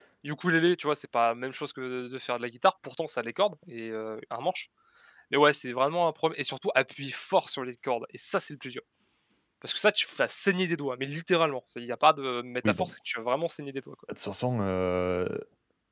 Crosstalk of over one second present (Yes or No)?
No